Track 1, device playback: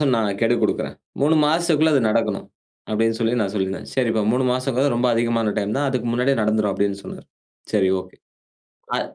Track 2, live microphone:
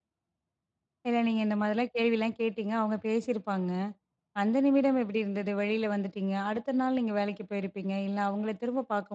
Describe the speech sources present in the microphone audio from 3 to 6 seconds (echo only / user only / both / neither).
user only